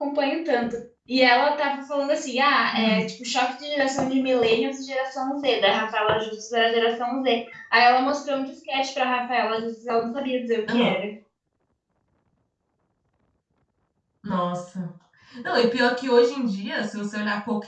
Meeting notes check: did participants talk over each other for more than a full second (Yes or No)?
No